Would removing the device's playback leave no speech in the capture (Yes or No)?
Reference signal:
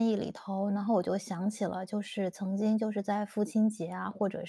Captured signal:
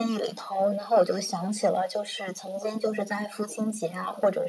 Yes